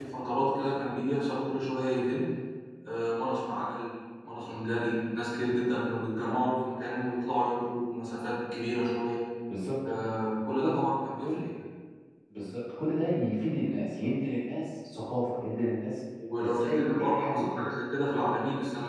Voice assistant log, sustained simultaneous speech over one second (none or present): present